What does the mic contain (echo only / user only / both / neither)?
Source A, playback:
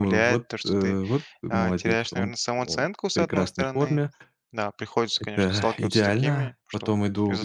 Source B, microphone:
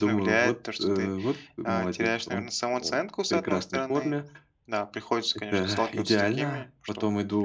echo only